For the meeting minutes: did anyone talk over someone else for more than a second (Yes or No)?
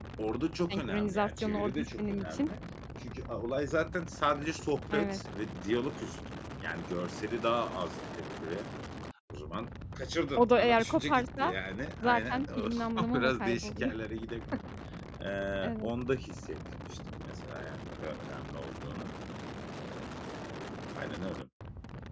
Yes